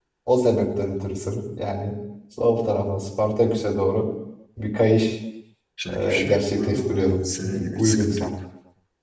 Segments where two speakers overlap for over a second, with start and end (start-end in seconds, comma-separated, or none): 6.0-8.3